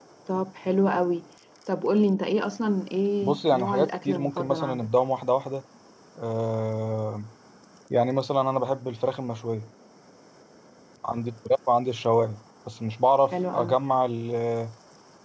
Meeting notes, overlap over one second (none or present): present